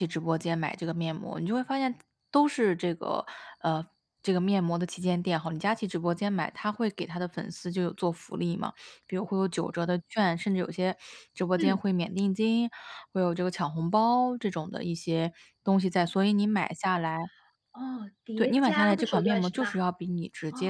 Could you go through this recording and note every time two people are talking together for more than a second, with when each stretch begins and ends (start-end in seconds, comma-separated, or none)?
18.4-19.7